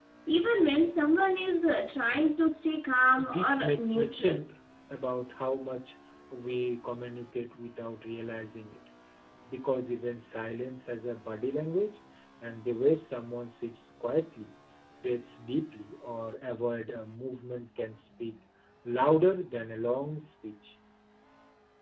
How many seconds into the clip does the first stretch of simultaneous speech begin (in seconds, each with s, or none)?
3.1 s